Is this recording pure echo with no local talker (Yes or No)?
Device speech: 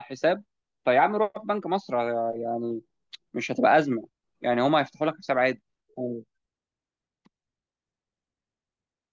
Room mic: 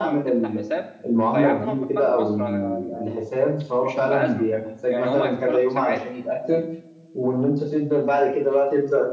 No